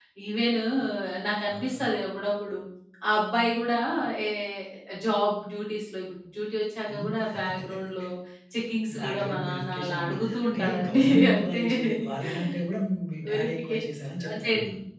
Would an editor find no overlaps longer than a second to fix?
No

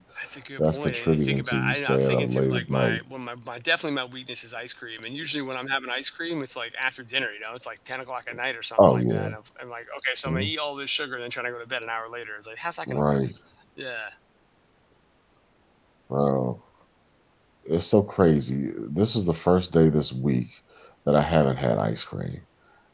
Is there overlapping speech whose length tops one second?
Yes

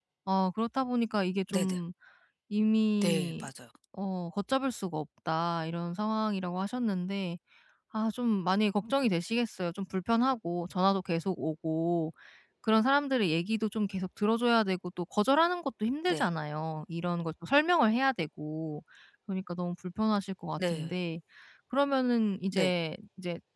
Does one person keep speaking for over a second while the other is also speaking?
No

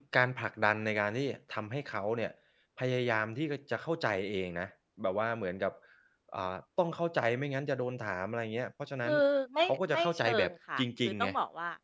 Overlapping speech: Yes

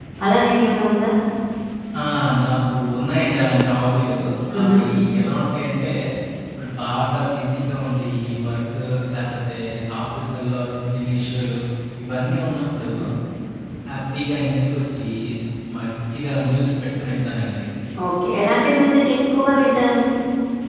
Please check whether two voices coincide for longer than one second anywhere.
No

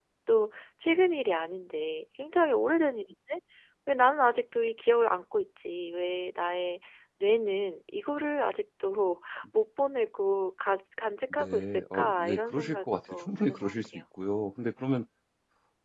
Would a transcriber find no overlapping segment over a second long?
No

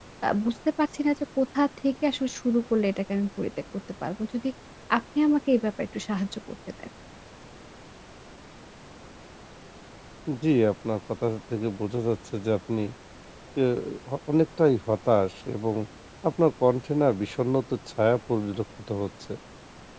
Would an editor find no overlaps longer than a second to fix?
Yes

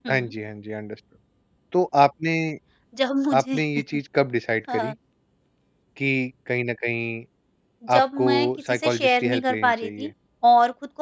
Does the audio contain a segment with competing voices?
Yes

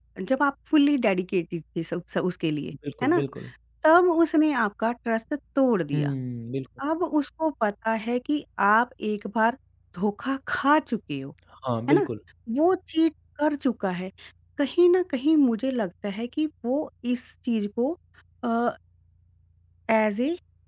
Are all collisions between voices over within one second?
Yes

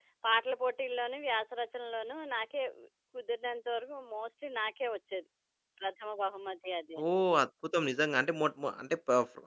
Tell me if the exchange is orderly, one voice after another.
Yes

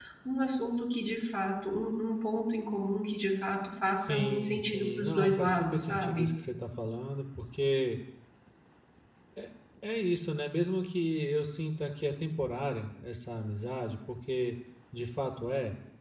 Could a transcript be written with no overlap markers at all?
No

